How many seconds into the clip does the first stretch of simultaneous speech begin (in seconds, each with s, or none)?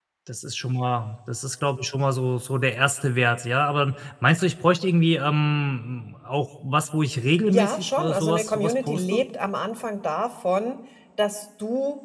7.5 s